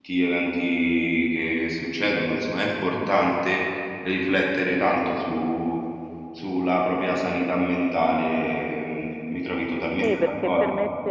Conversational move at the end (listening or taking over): taking over